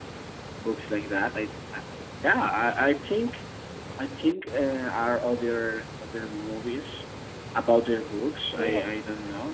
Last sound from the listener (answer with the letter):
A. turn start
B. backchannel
A